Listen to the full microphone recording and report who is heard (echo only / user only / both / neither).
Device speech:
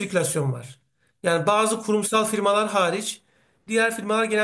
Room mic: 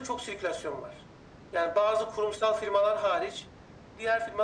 echo only